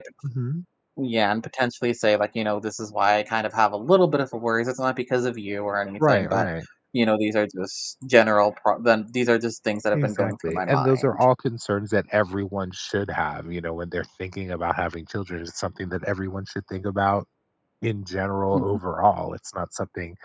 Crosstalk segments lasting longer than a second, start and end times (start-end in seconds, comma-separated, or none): 9.9-11.2